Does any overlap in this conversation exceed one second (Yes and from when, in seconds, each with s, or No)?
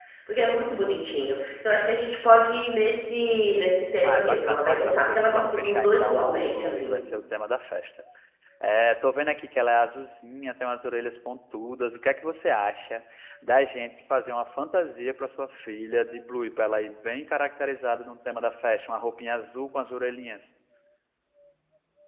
Yes, from 4.0 s